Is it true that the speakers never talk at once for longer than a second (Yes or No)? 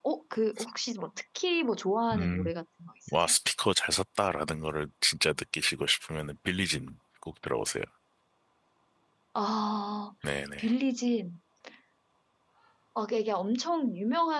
Yes